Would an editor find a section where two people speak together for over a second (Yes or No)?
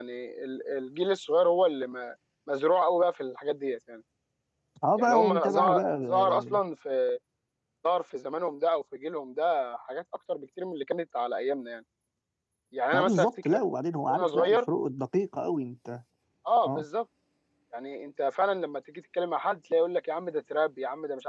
Yes